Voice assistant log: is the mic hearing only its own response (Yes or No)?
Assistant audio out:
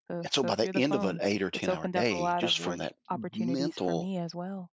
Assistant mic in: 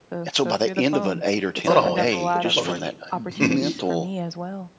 No